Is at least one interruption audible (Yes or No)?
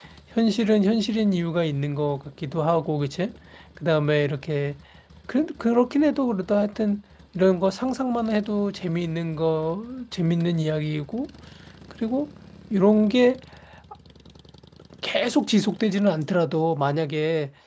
No